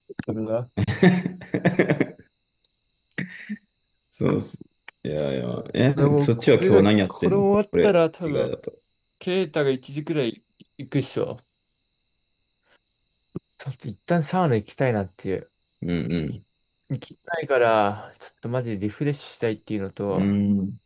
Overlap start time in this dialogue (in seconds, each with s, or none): 6.0 s